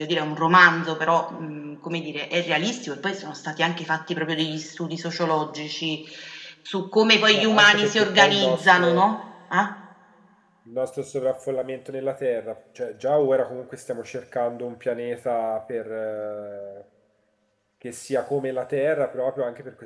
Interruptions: present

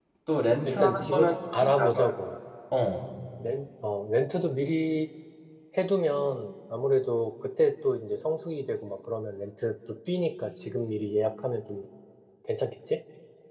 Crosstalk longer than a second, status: present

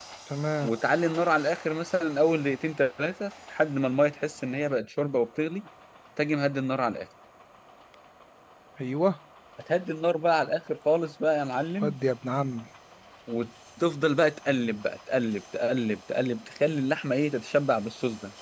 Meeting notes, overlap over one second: none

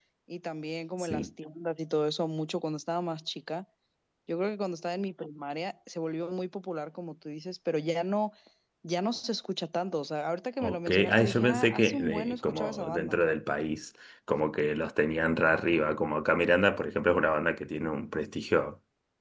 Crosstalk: present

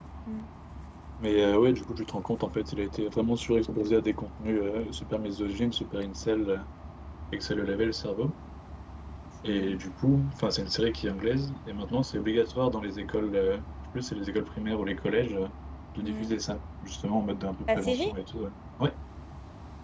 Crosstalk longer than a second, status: none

